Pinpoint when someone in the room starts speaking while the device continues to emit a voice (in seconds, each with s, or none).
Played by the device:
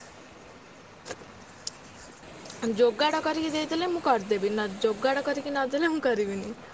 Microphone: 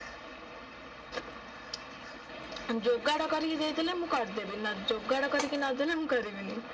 none